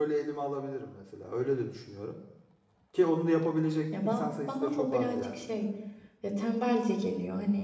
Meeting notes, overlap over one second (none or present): present